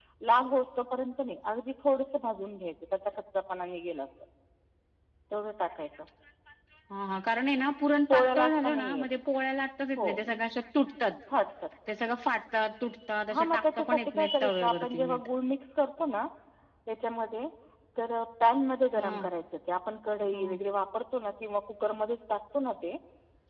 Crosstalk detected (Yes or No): Yes